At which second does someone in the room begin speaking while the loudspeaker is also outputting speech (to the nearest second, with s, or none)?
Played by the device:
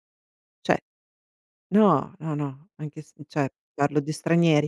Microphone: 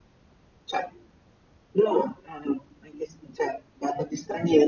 none